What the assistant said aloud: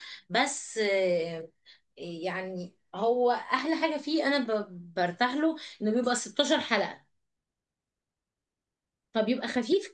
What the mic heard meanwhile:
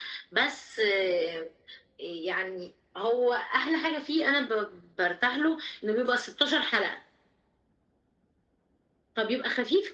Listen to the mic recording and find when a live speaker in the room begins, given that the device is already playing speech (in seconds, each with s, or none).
none